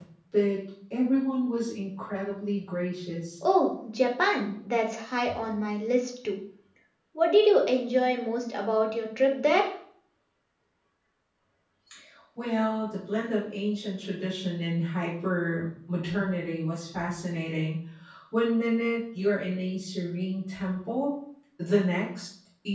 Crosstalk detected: No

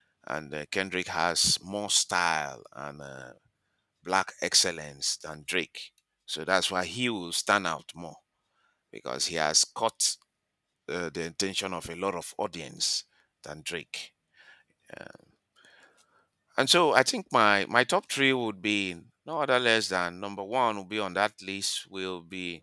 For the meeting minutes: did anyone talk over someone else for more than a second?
No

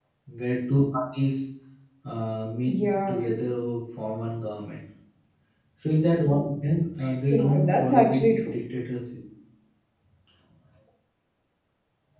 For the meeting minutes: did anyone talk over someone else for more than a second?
Yes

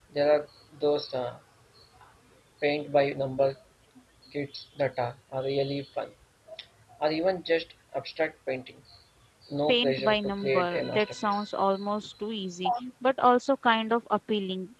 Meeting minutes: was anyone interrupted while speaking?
Yes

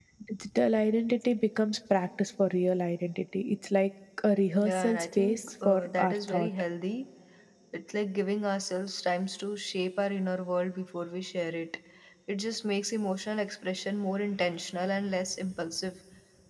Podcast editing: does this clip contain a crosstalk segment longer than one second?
Yes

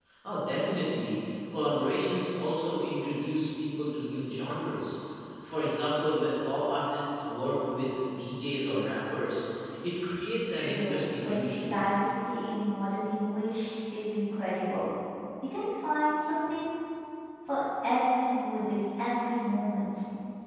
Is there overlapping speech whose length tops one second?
Yes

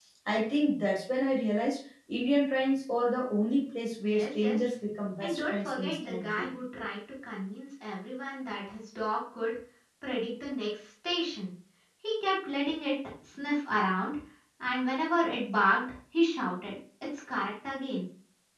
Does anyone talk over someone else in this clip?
Yes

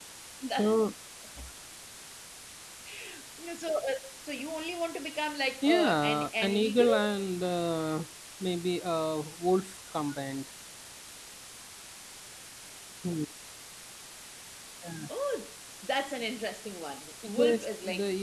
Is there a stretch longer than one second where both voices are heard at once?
Yes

